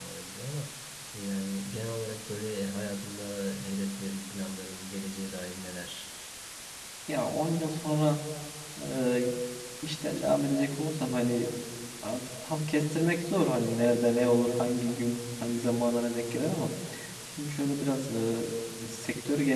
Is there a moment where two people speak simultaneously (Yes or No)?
No